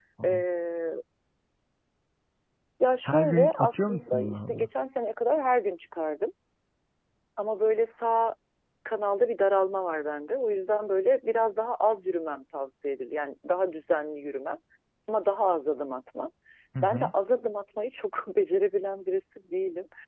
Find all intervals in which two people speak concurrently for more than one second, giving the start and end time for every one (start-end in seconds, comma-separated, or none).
3.0-4.7